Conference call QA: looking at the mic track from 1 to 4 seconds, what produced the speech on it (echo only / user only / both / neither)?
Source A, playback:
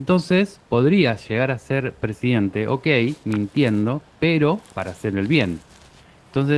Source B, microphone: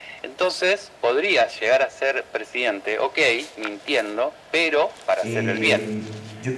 echo only